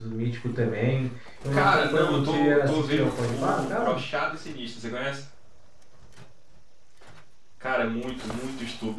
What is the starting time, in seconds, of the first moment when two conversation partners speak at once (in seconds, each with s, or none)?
1.5 s